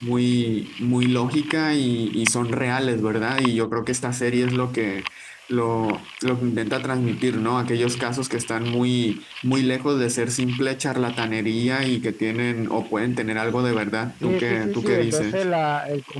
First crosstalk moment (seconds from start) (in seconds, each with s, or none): 14.2 s